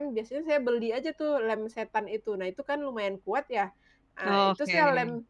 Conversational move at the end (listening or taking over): listening